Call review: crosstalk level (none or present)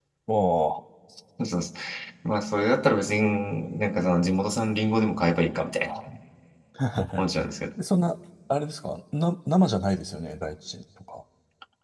none